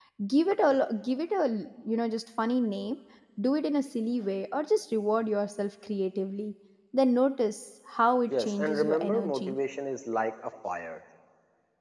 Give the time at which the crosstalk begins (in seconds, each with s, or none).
8.3 s